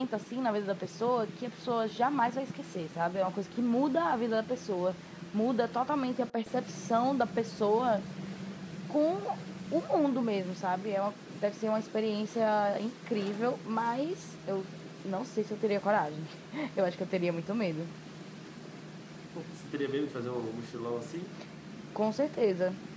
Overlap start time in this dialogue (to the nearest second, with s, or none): none